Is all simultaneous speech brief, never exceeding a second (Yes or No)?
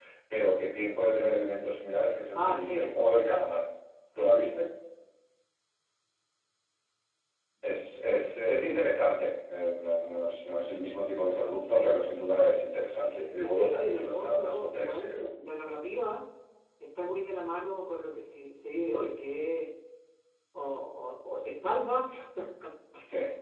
No